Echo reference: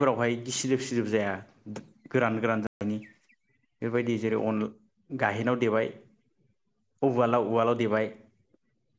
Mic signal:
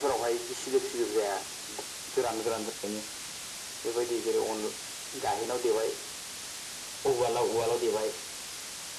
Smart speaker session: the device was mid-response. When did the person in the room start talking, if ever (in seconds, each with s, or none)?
none